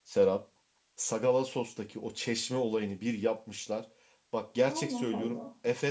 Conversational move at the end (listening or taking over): listening